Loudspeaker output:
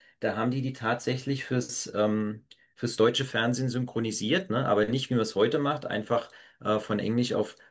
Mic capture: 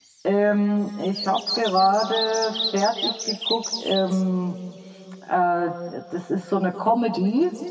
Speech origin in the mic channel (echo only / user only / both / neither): user only